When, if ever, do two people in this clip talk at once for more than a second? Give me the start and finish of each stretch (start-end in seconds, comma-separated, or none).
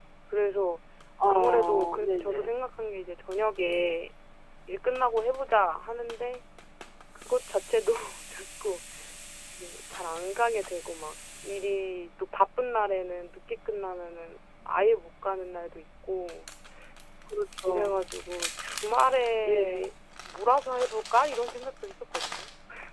1.3-2.5